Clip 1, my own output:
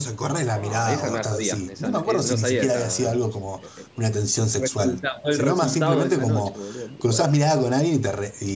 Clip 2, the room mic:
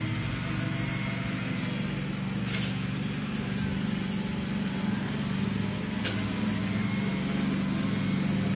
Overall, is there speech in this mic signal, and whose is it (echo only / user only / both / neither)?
neither